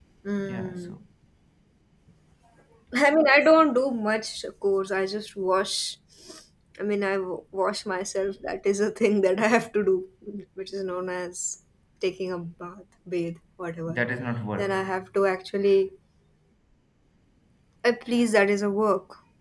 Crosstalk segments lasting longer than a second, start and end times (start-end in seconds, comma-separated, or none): none